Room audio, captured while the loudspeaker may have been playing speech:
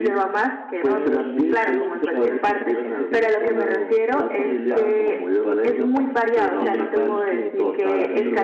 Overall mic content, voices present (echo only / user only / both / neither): both